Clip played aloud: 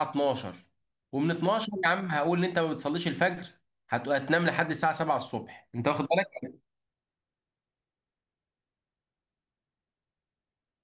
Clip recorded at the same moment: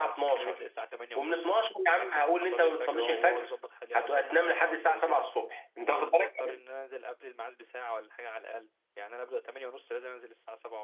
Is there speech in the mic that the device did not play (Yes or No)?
Yes